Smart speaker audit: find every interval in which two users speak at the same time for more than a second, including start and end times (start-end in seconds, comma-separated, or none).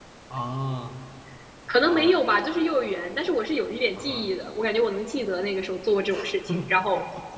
none